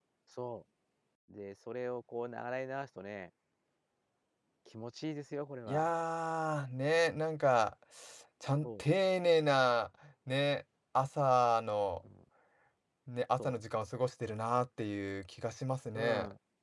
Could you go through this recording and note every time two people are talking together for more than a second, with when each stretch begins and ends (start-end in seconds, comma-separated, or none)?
none